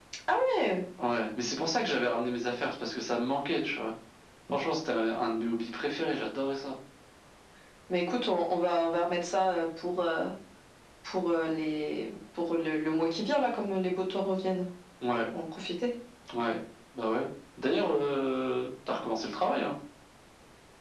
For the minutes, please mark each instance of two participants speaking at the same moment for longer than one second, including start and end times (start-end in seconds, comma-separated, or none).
none